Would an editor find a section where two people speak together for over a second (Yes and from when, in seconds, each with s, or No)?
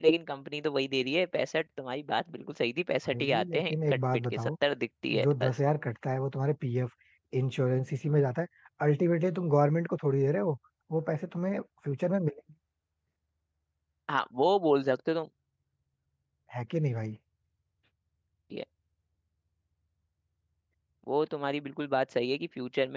Yes, from 3.1 s